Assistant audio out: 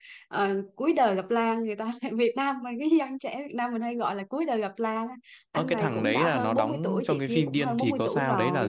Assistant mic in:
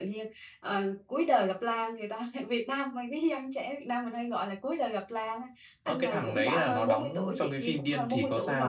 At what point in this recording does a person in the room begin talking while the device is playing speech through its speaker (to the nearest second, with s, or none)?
none